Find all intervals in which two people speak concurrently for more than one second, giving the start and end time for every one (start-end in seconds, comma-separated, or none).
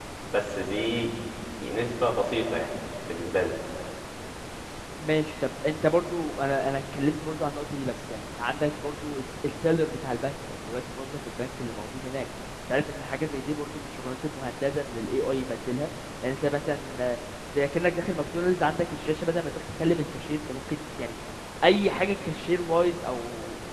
none